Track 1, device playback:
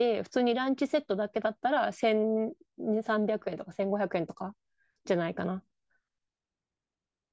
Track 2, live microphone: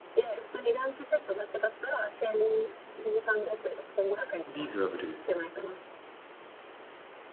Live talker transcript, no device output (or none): スリーズナブル。